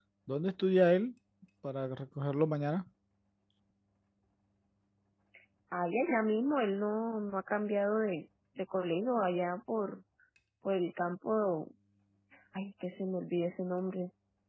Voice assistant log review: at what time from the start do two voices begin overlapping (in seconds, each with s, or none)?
none